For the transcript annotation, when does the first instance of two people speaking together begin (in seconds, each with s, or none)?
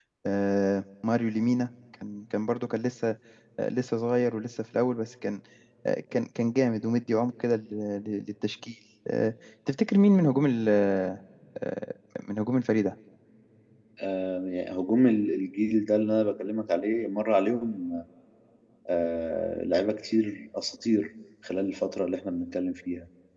none